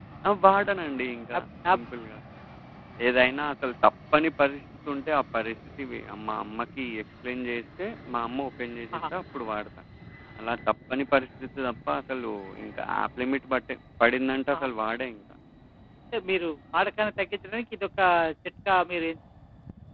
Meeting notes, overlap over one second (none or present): none